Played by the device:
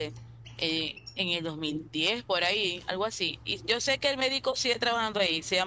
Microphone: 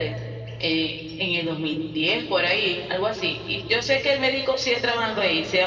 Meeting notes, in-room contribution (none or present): none